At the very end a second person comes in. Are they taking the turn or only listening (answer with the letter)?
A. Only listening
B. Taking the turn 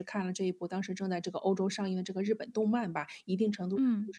A